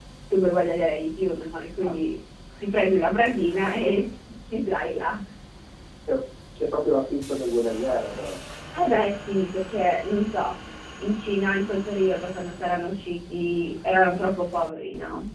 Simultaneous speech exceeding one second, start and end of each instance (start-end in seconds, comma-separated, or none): none